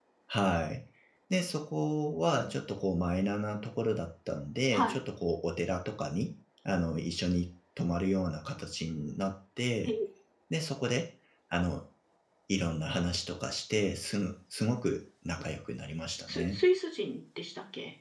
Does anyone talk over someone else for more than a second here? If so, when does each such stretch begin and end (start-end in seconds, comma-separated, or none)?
none